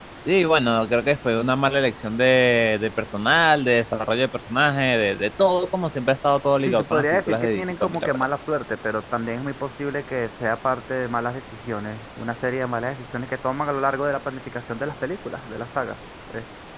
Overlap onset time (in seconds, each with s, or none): 6.7 s